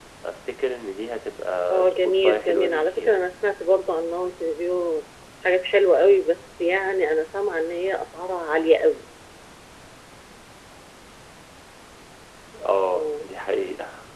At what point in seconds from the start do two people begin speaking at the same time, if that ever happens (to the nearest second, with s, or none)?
2 s